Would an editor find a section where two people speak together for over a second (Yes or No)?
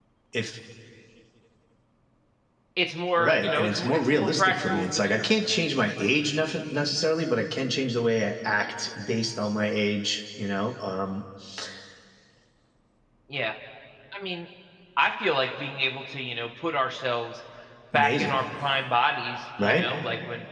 Yes